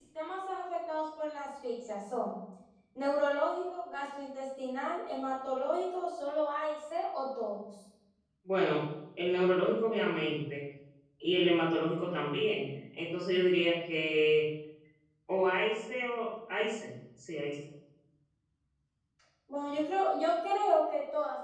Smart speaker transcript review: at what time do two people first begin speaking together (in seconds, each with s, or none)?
none